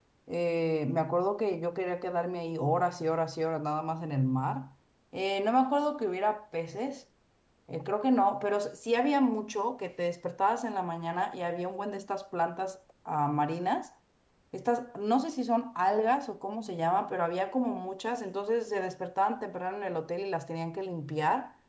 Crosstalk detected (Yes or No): No